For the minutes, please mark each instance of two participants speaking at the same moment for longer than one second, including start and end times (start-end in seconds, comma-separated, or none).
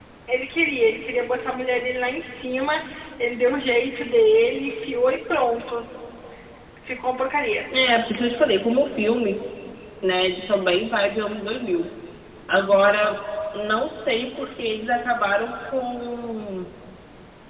none